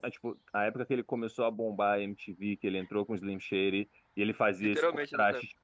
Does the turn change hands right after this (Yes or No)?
No